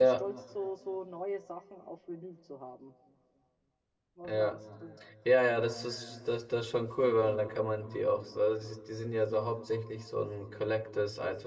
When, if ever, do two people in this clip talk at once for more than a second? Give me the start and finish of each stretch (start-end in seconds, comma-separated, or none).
none